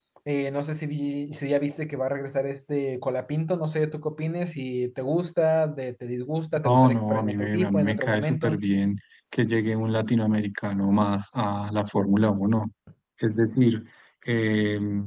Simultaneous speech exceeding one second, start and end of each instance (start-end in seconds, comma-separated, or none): 6.6-8.6